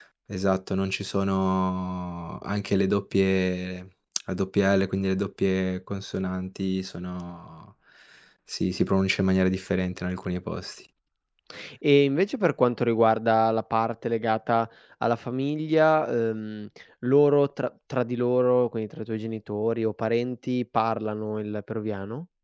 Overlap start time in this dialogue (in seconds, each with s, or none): none